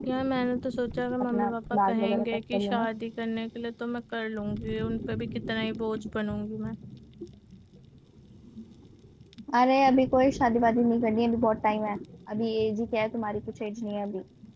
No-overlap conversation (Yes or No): No